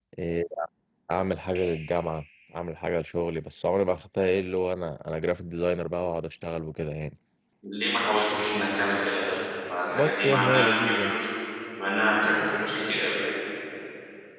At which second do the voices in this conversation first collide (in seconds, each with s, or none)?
9.9 s